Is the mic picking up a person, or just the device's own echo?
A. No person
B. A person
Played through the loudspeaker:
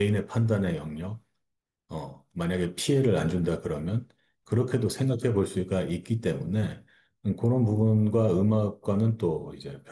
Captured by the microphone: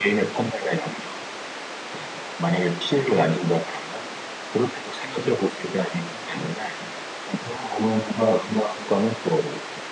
A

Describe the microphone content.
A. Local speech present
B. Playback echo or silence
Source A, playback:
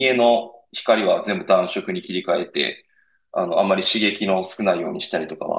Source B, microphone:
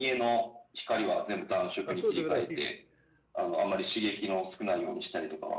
A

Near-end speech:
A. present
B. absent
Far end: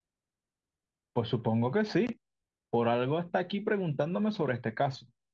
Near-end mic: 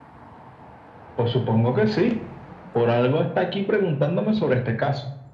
B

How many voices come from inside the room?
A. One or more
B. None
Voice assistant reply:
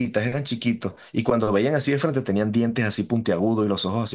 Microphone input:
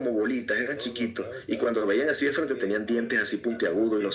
A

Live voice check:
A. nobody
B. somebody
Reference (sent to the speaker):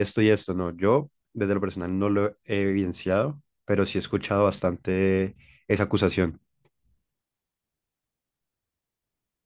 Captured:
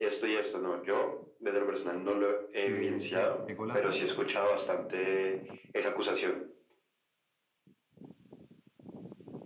B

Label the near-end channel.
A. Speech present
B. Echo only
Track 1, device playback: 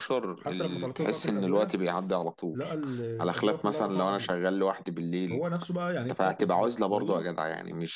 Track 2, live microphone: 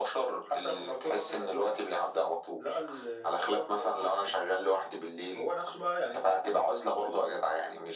B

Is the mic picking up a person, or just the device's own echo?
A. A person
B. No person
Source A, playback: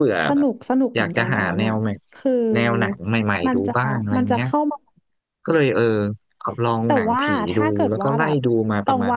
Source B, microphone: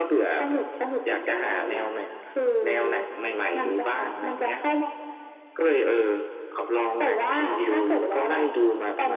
B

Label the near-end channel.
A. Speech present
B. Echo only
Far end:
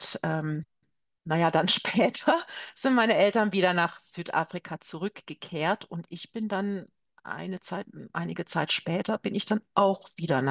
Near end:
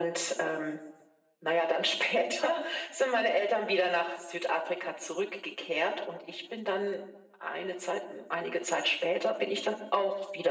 B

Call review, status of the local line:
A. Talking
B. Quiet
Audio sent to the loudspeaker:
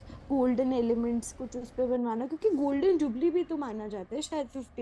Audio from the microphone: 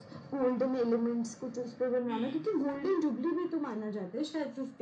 A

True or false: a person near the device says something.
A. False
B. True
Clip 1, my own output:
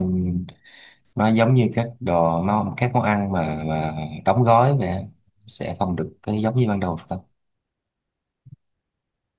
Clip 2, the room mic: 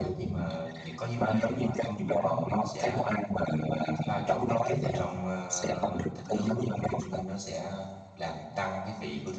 B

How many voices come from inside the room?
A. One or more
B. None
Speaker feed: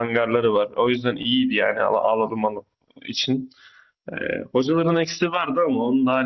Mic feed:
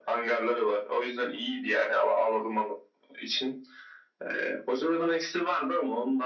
B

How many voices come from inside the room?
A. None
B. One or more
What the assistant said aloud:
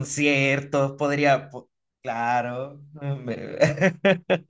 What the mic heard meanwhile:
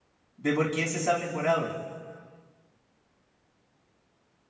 B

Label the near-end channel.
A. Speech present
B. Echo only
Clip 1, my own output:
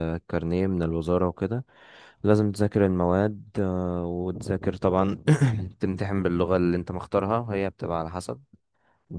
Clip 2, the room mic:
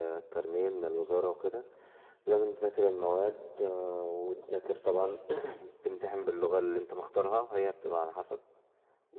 B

